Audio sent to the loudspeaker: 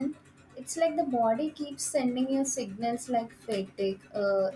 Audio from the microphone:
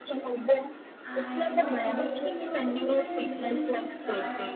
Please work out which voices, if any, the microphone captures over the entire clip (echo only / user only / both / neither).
both